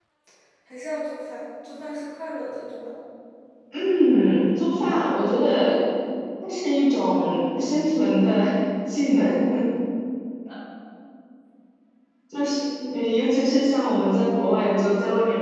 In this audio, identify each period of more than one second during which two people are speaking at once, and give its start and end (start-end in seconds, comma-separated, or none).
none